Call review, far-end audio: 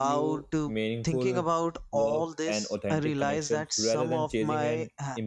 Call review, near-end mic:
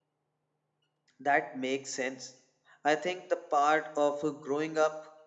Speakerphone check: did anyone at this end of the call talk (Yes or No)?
Yes